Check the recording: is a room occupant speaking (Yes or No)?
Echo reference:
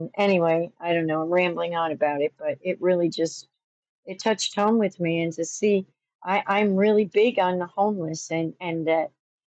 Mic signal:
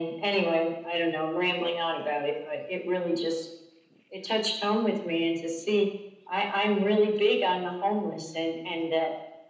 No